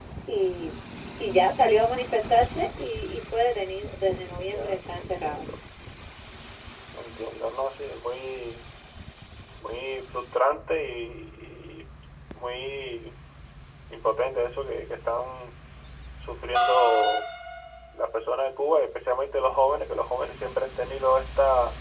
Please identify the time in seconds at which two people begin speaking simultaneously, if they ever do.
4 s

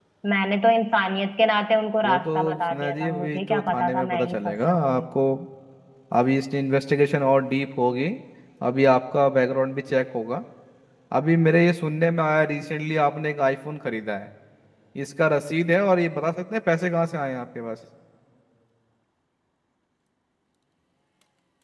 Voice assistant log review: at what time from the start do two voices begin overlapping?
2 s

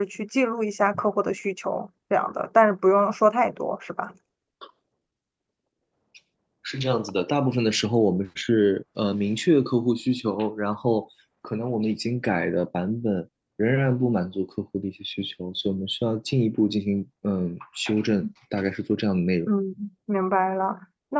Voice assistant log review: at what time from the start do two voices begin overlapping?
none

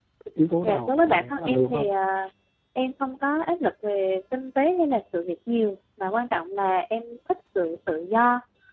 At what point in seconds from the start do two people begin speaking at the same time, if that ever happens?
1 s

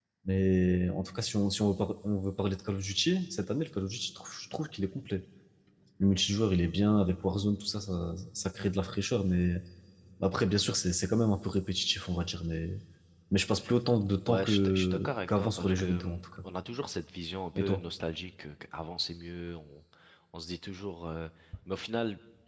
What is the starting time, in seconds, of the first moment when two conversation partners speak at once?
14 s

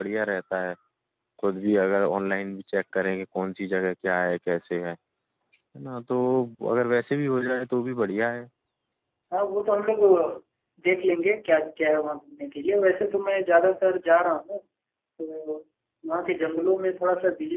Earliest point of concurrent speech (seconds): none

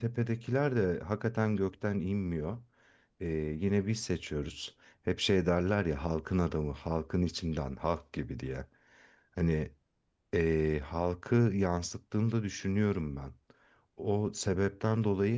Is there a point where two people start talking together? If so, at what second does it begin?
none

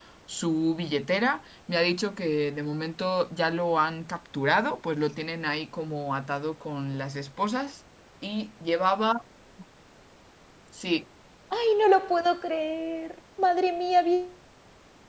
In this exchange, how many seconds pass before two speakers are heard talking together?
none

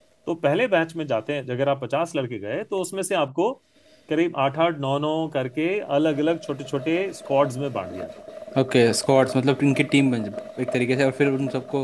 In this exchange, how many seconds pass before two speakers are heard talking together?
none

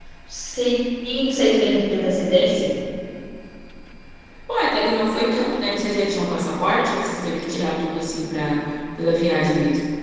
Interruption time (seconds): none

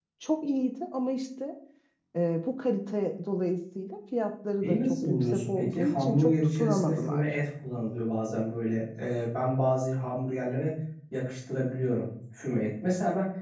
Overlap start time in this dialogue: 5 s

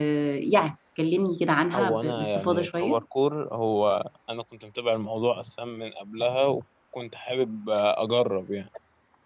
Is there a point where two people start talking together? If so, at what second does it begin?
2 s

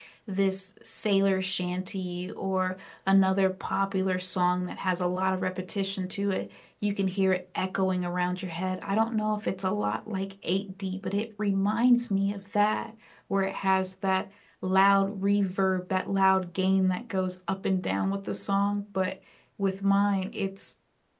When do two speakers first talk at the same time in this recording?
none

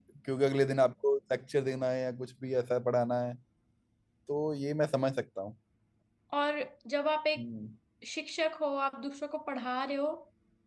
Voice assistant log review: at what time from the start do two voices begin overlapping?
none

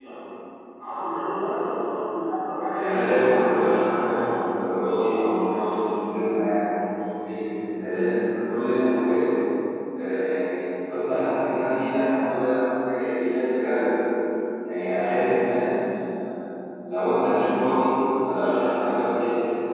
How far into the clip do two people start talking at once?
3 s

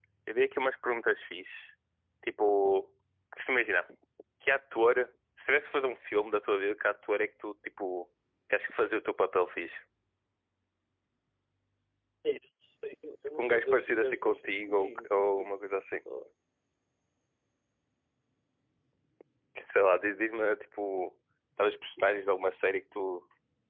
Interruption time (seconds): 13 s

